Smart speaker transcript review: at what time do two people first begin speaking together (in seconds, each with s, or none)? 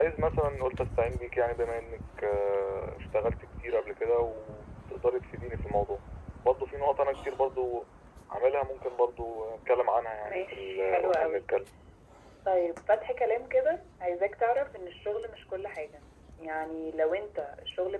10.2 s